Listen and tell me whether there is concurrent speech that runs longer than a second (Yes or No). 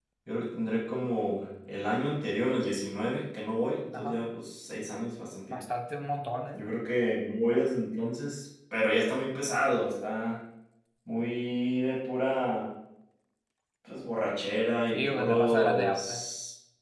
Yes